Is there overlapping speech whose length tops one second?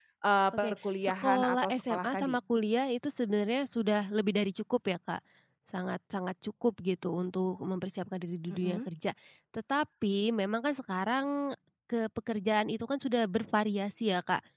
Yes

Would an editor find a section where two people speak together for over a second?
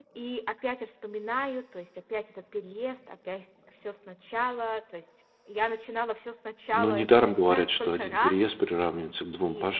Yes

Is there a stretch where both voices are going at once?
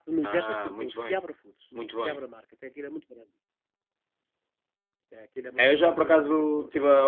Yes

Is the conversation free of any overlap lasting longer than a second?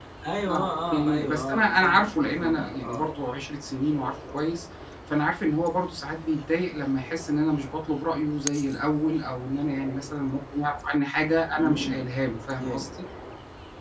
No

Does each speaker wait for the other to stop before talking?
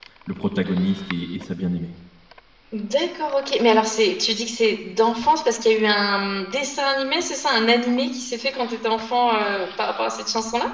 Yes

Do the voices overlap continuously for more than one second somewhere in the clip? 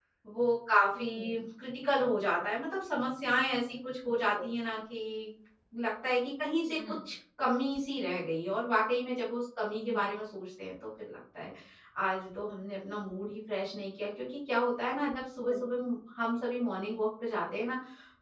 No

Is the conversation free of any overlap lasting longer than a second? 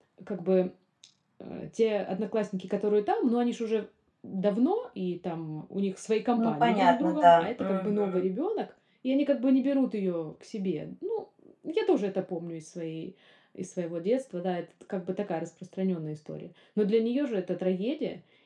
No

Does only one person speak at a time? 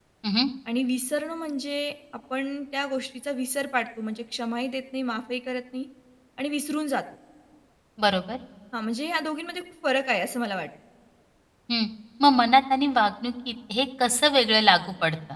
Yes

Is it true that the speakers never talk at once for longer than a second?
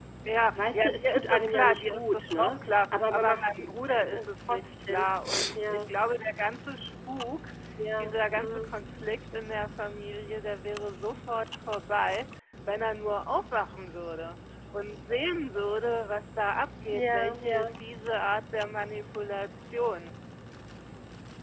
No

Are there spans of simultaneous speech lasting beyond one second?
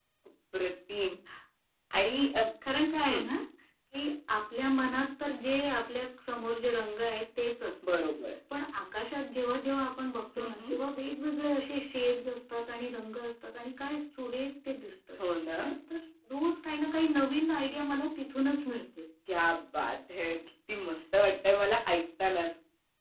No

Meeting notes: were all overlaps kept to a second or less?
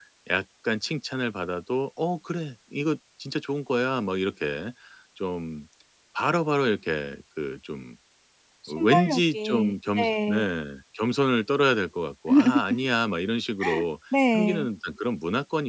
No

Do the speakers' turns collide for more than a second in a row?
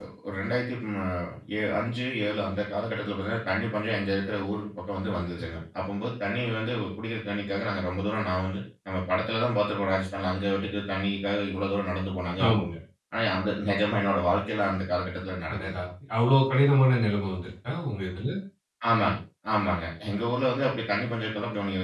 No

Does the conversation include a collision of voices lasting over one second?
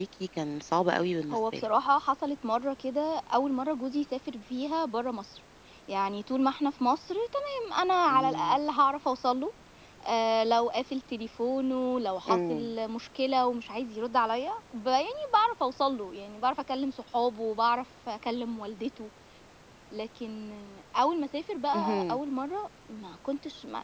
No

